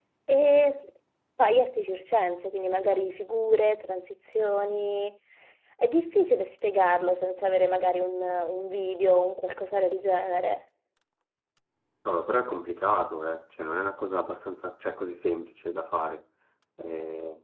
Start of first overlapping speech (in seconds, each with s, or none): none